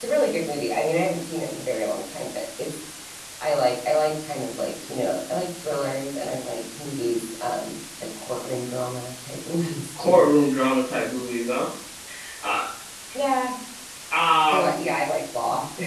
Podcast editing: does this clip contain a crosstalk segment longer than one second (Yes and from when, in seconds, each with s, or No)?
No